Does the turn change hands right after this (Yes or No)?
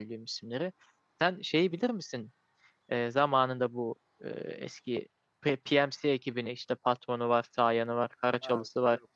Yes